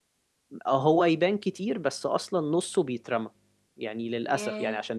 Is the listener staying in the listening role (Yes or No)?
Yes